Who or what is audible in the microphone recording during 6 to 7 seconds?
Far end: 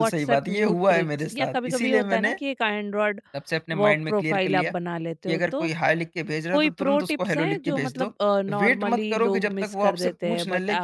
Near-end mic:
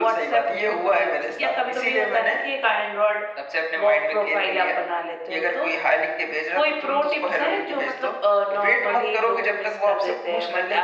echo only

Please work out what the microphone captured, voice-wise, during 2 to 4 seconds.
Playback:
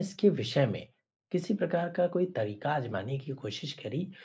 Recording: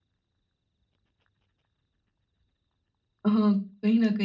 user only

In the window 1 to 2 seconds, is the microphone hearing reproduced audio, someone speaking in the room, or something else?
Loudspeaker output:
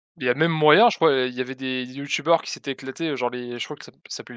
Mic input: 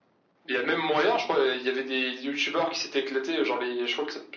echo only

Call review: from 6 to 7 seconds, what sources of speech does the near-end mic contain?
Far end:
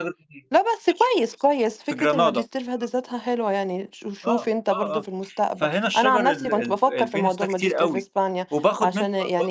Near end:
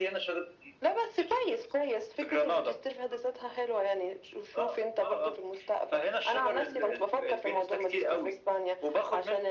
echo only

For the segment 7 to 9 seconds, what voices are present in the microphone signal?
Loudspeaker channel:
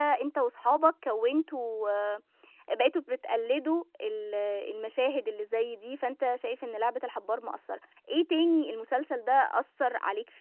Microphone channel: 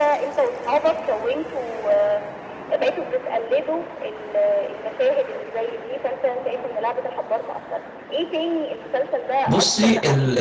echo only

